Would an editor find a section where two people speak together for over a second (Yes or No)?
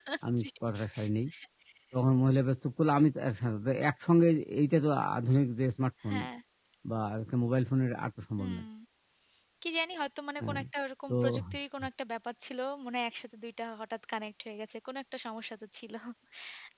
No